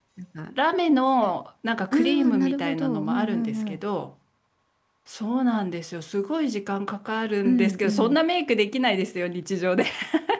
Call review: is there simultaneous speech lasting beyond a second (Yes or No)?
Yes